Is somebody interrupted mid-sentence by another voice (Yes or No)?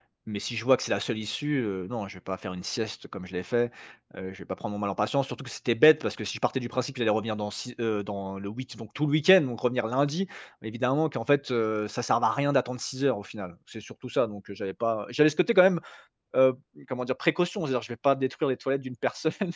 No